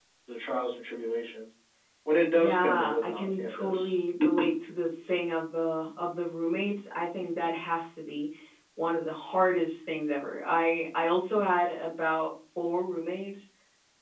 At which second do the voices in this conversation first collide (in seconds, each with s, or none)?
2.3 s